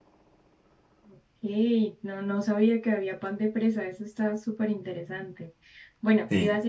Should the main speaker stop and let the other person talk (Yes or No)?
No